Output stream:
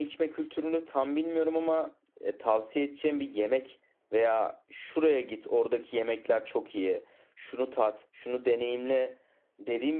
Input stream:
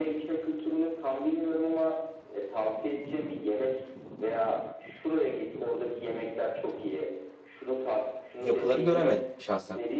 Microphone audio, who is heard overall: both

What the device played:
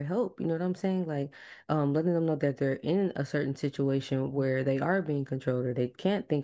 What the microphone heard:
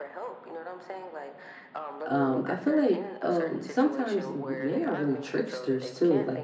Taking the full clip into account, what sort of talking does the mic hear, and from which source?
both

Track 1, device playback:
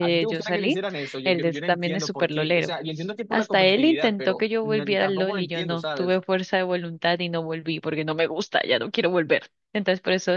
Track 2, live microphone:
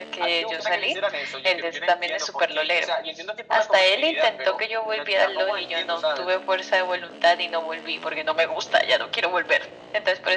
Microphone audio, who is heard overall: echo only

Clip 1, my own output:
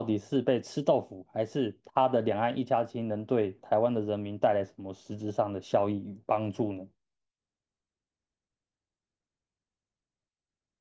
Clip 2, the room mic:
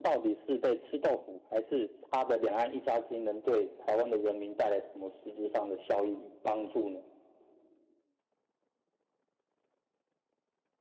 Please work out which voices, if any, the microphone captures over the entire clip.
echo only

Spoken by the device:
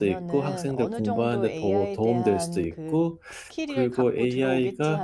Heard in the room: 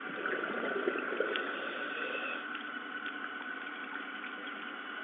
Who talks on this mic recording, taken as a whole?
neither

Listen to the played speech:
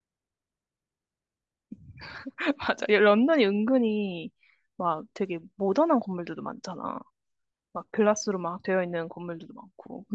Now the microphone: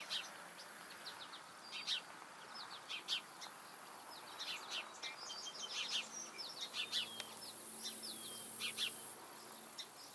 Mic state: neither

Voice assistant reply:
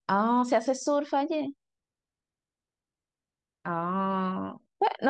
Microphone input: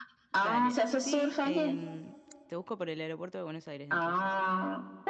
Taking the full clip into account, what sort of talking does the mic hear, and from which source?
both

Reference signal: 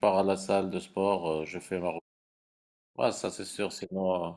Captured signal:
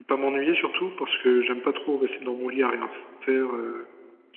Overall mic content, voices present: user only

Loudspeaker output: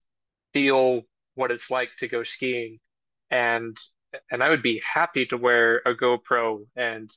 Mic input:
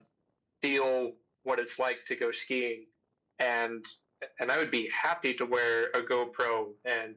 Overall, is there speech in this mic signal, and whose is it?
echo only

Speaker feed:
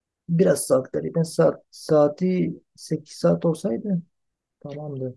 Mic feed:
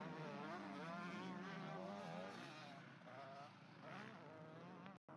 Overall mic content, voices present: neither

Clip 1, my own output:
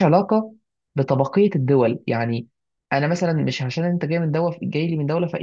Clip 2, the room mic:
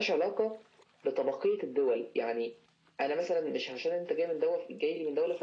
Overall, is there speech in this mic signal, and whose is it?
echo only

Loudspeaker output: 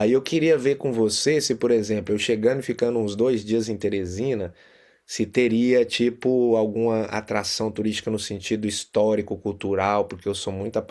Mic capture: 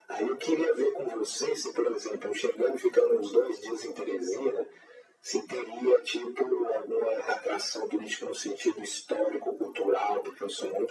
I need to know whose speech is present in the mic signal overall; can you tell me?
echo only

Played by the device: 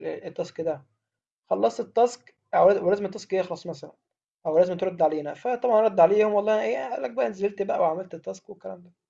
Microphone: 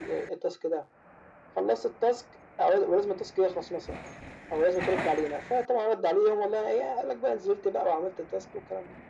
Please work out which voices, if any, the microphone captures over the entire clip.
echo only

